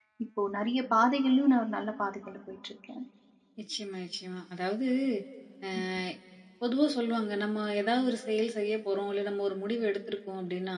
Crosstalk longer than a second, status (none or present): none